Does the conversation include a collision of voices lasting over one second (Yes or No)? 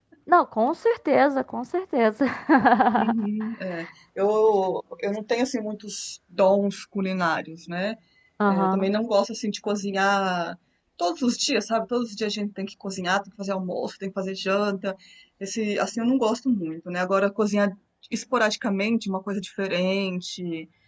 No